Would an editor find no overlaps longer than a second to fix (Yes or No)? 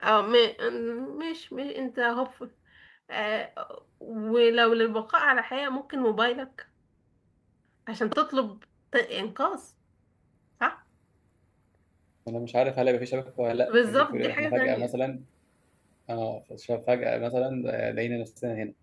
No